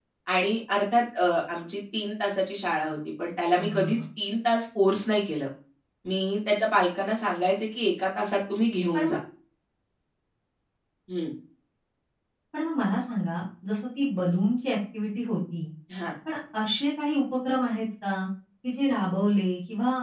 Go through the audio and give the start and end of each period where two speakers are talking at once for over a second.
none

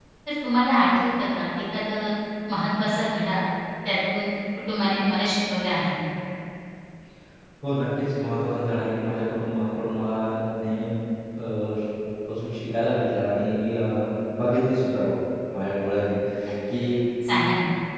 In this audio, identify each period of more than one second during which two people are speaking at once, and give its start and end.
none

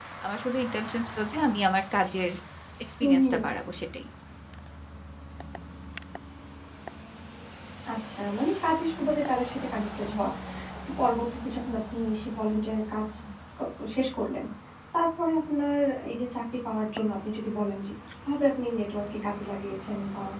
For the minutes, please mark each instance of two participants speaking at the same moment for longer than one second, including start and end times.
none

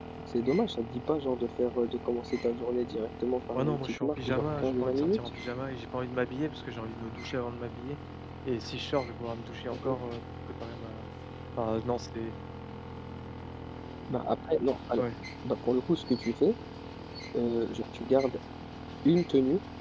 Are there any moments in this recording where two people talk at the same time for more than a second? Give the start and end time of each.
3.5-5.2

